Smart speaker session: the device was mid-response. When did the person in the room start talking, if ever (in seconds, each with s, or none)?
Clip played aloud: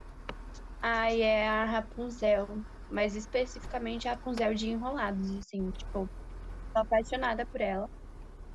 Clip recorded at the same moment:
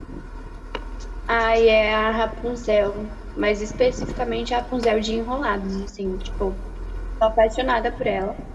none